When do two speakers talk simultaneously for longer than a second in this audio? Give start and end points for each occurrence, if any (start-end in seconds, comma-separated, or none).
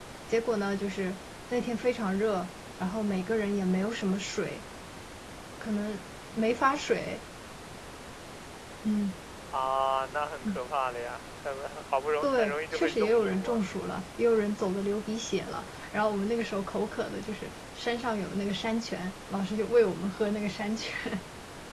12.2-13.6